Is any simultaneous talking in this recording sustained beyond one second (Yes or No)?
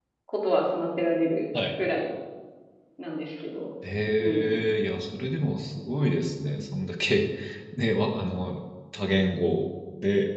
No